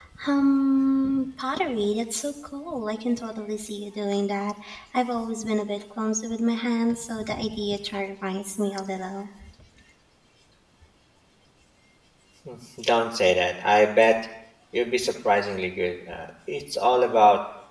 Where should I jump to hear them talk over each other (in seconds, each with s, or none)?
none